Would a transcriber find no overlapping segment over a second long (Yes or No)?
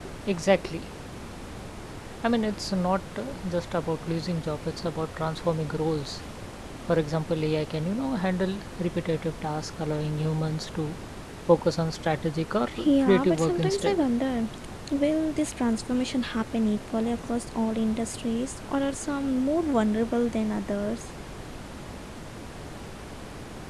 No